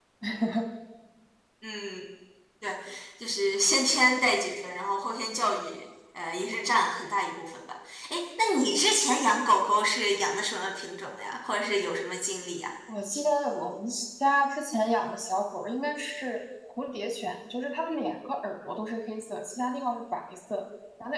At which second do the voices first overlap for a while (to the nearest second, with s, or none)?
none